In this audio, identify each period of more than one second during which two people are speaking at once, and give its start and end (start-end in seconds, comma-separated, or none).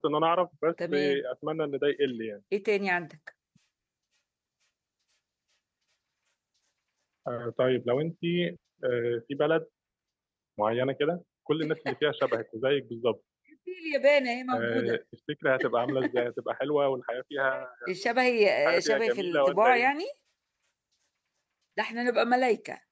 18.6-19.8